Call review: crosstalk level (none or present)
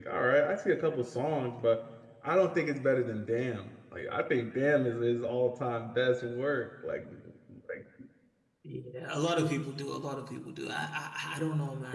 none